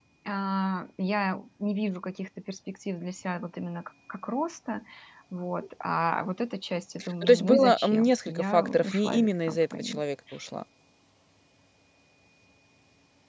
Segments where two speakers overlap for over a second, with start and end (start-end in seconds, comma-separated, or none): 7.2-10.0